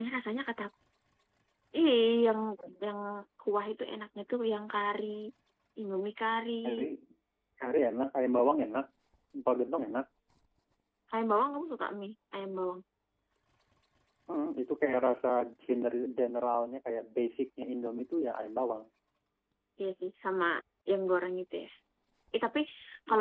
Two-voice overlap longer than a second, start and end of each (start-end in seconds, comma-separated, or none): none